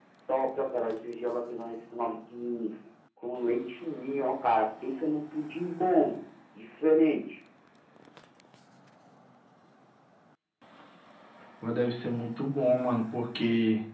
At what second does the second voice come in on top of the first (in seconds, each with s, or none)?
none